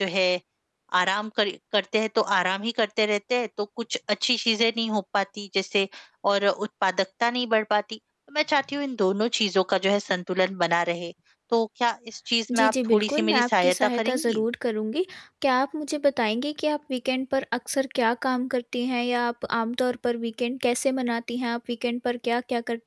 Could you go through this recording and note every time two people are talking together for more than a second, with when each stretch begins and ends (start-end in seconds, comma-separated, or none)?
12.5-14.4